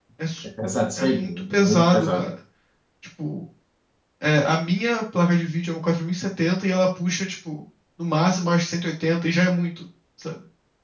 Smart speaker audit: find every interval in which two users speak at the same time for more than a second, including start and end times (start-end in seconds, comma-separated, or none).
1.0-2.3